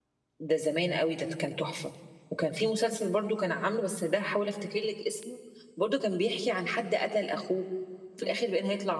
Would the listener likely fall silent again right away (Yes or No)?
Yes